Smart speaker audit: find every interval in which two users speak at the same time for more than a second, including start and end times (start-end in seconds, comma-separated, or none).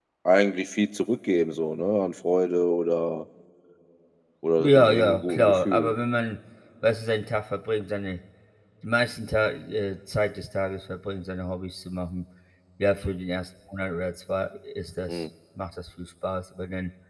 4.6-5.9